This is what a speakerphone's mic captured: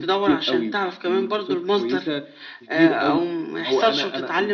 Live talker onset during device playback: none

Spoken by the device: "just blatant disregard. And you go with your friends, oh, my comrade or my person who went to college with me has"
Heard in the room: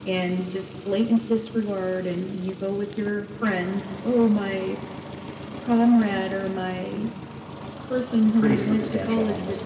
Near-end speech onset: 8 s

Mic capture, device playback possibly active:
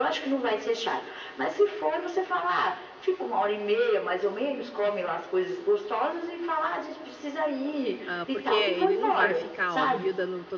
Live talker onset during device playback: 8 s

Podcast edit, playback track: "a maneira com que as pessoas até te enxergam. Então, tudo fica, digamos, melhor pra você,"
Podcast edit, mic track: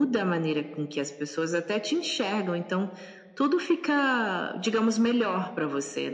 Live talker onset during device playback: none

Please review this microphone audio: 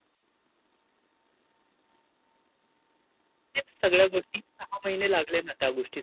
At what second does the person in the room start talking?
4 s

